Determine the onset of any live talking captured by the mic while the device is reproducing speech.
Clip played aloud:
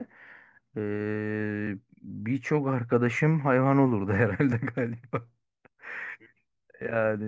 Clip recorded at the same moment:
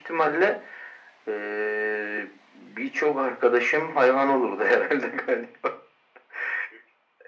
none

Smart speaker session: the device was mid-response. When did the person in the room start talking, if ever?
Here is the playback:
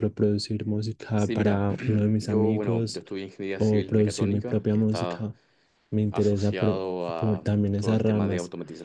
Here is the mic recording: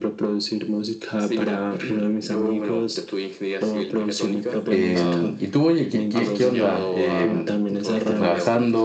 4.7 s

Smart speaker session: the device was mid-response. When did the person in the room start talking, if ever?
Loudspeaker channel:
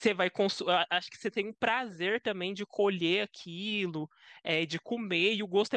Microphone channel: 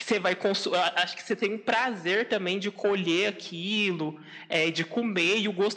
none

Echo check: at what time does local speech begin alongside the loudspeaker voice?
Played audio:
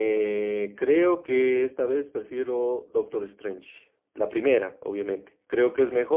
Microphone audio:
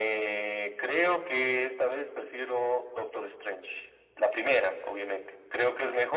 none

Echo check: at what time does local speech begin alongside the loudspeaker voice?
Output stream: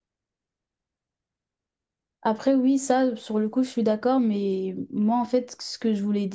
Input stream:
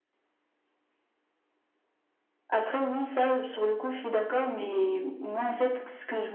none

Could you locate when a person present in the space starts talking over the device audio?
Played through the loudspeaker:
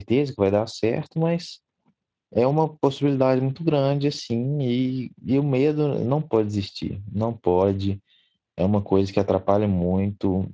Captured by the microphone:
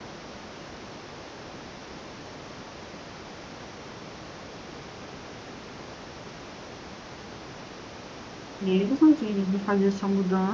8.6 s

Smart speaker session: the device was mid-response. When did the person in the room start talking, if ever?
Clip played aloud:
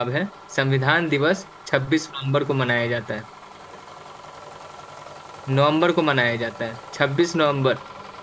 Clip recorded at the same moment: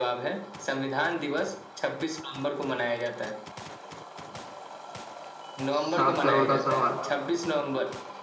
5.8 s

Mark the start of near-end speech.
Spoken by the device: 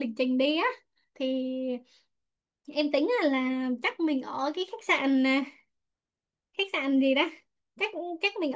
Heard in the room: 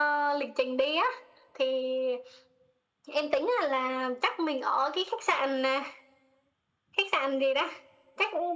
none

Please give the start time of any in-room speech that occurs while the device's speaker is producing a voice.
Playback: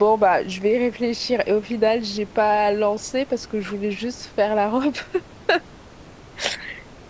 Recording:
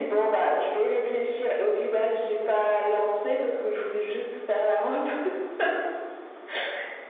none

